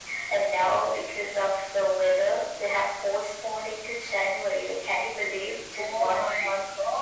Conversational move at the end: taking over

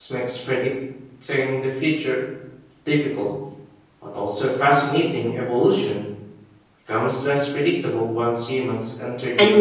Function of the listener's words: taking over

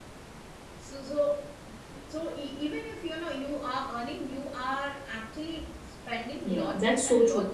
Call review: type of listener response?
taking over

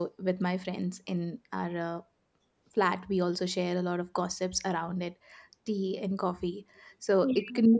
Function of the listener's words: listening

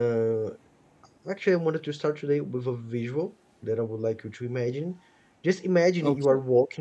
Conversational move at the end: listening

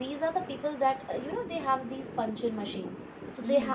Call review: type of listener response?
listening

